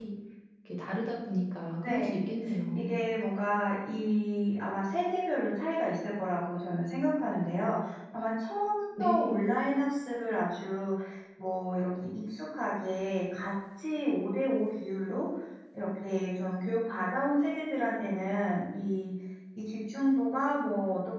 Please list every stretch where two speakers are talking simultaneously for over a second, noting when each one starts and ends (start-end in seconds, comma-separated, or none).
none